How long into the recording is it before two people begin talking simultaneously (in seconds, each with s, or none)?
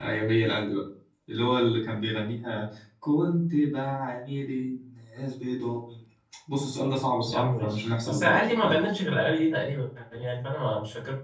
7.2 s